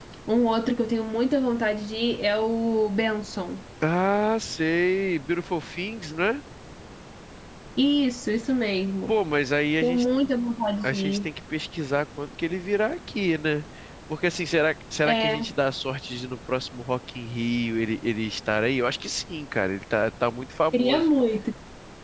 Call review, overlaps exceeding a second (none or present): none